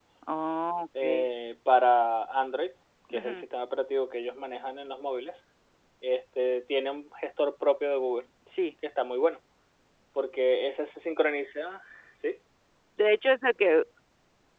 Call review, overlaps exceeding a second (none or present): none